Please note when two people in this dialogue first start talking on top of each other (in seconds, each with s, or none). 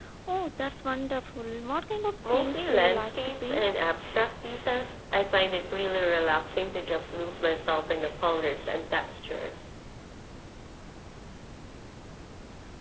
2.2 s